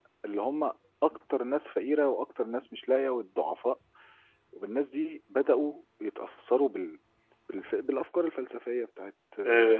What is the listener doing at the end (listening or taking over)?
taking over